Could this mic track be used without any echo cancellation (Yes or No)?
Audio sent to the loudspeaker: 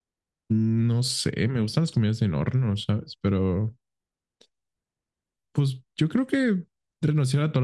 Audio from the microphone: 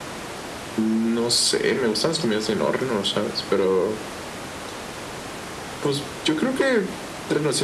No